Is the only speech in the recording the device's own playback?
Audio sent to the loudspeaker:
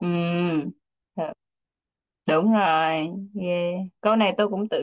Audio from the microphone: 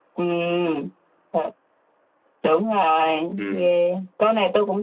No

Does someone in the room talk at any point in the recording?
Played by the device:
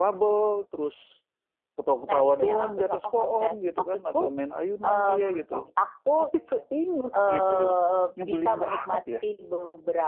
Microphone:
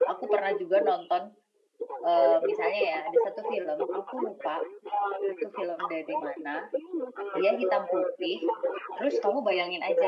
Yes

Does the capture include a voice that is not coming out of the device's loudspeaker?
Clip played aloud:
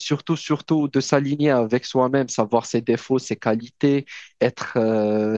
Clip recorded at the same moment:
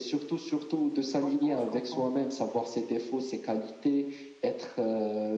Yes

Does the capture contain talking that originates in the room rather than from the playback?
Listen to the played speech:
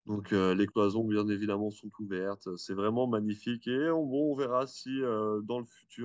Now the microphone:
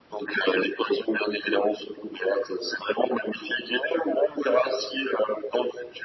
No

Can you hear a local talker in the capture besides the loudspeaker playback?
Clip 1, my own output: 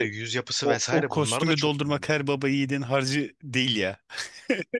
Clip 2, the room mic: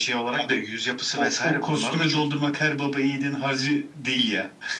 No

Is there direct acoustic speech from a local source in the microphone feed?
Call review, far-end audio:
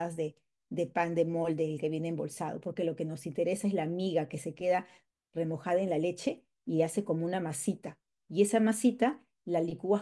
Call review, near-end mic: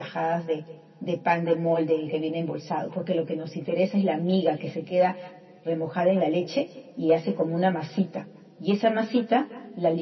No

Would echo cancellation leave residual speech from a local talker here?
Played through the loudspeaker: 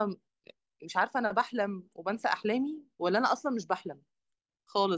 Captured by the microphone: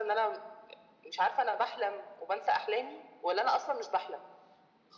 No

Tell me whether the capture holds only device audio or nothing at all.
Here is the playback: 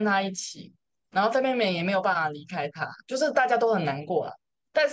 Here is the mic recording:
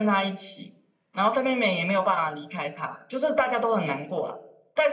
Yes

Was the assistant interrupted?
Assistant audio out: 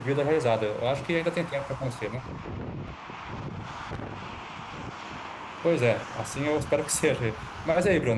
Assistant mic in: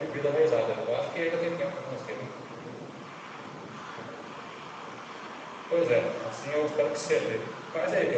No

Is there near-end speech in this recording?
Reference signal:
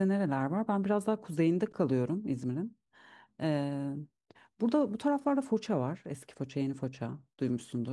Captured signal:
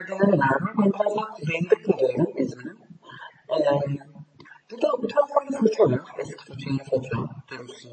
No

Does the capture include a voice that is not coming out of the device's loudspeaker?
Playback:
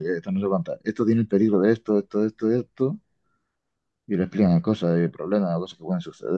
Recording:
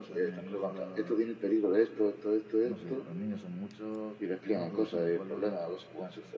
Yes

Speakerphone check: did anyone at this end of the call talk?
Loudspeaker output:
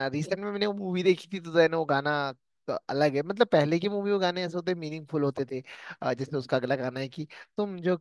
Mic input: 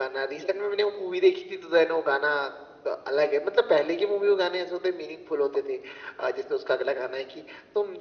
No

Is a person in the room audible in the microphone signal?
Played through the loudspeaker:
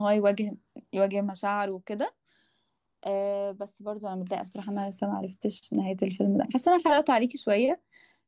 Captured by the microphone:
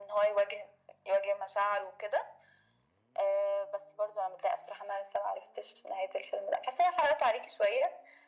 No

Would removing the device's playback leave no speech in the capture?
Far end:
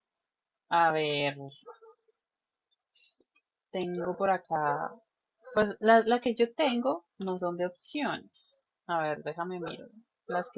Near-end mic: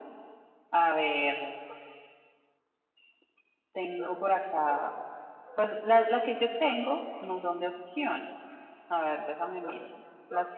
Yes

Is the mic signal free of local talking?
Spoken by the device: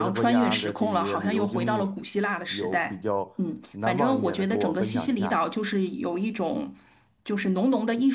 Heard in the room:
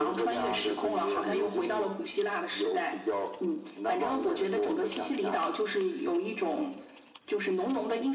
Yes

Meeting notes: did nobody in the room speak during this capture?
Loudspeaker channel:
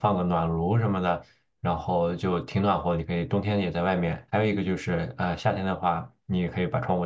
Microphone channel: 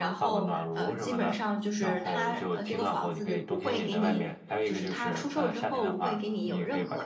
No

